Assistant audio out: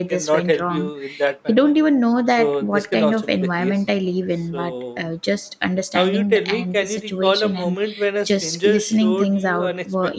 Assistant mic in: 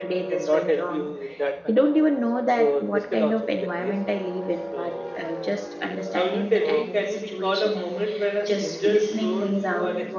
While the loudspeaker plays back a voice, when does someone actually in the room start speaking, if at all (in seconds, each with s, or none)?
6.6 s